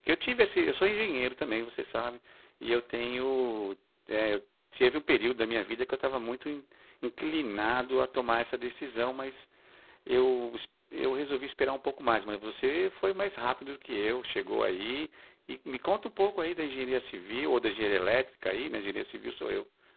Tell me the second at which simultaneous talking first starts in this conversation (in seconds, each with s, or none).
none